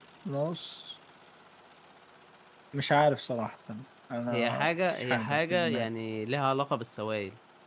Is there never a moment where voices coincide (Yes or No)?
No